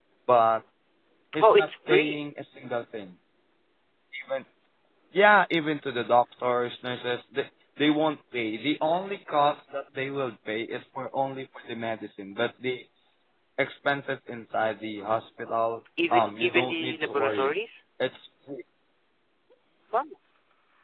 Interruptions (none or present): present